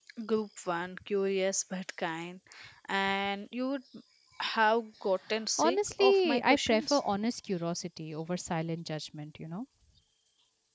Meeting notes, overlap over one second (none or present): present